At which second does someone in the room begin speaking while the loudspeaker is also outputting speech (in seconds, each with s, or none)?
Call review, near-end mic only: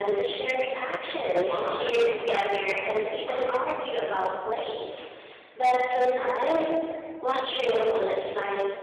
1.0 s